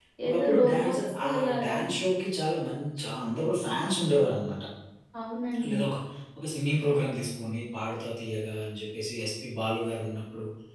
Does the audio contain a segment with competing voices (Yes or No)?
Yes